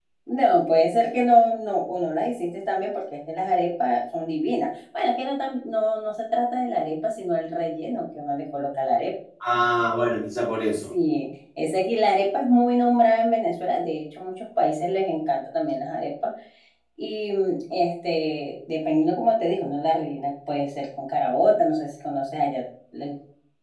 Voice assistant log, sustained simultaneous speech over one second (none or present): none